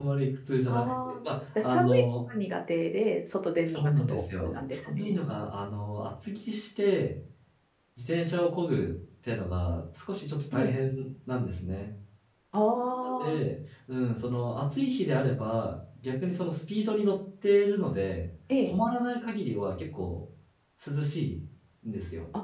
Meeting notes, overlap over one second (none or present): present